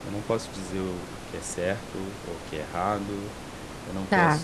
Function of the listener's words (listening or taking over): listening